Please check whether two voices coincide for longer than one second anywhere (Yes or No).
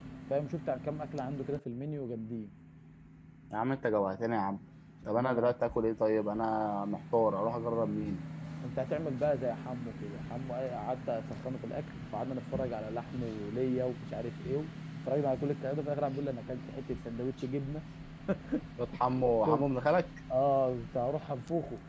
No